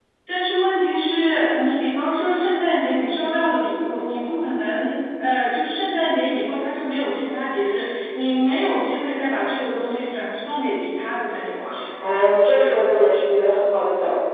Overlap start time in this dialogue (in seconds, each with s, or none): none